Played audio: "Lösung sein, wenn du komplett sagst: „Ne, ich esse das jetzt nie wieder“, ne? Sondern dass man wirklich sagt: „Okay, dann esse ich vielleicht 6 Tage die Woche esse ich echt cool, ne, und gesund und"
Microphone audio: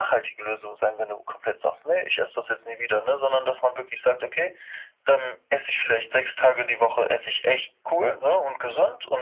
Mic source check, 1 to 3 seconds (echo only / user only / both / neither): echo only